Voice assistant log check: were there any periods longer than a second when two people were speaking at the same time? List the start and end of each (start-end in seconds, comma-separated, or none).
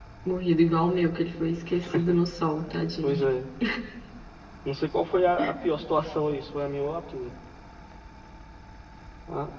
none